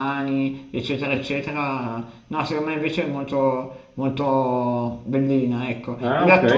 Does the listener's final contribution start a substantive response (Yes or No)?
No